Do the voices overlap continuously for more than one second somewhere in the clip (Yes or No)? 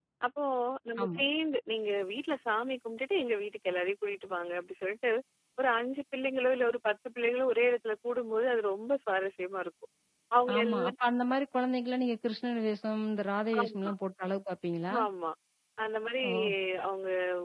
No